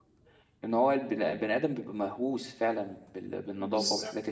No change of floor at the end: Yes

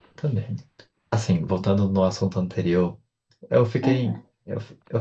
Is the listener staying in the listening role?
Yes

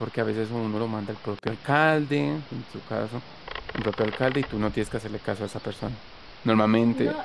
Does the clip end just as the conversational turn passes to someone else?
Yes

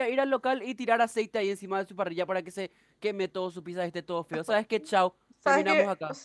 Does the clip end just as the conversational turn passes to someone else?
Yes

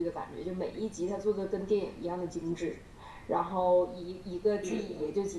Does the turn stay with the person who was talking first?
Yes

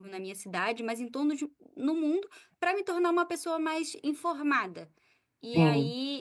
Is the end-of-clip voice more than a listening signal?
No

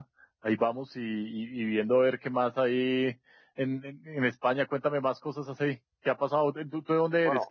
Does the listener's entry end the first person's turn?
Yes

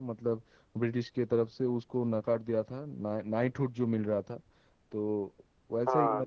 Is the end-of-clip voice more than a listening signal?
No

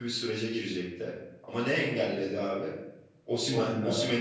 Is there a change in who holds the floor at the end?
No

